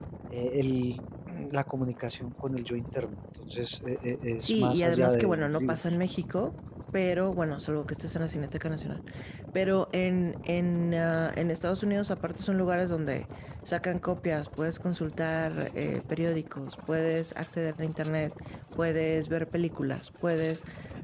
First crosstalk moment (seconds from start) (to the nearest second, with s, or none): 4 s